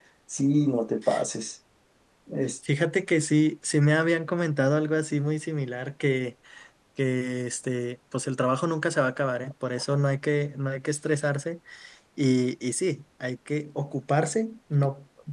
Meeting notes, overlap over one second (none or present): none